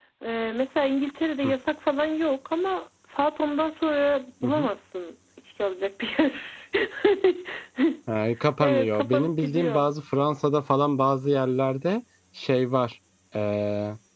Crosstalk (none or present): present